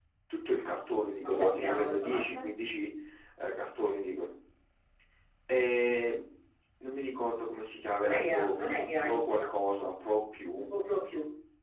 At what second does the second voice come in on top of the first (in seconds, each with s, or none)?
1.2 s